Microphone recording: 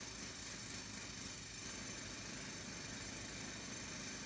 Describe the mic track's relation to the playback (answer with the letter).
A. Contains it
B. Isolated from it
B